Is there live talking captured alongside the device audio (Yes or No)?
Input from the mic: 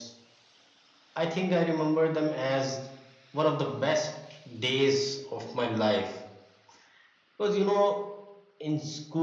No